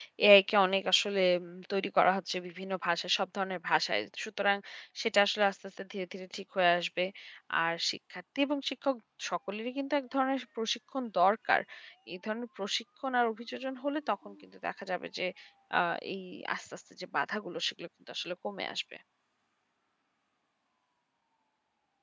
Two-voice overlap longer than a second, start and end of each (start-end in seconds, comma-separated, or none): none